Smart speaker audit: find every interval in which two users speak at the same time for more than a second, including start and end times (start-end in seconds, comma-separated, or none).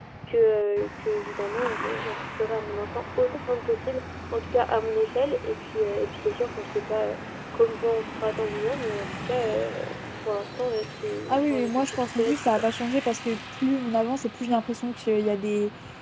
11.3-12.6